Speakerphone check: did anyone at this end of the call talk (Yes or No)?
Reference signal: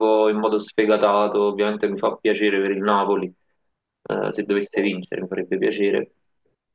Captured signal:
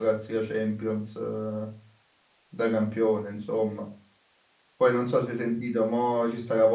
Yes